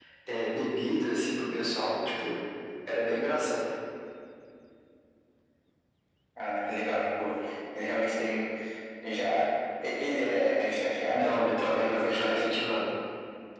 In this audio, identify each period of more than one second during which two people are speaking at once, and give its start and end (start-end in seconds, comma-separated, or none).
11.1-12.4